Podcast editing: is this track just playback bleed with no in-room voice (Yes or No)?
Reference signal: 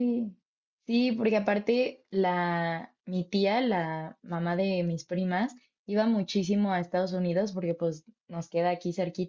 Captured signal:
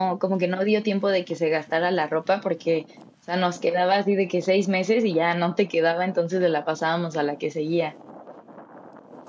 No